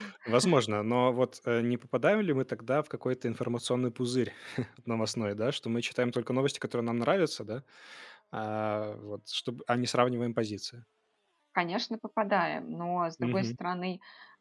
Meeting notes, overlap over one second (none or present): none